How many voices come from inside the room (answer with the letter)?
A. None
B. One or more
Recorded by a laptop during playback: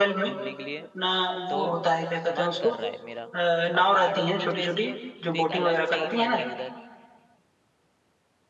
B